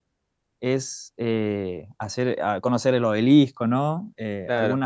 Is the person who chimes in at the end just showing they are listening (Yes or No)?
Yes